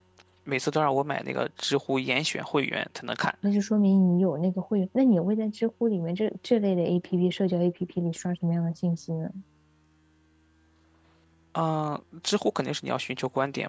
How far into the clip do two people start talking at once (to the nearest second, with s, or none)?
none